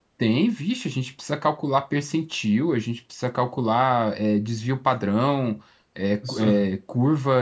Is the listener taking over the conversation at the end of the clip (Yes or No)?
No